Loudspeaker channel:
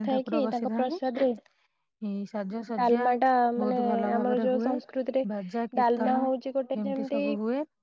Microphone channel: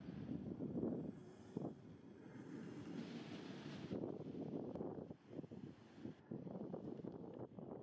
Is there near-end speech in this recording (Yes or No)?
No